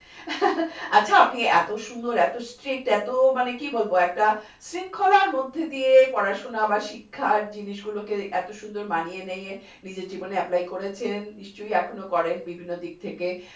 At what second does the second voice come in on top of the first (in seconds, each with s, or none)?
none